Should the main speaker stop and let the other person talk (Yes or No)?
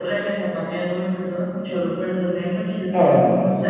No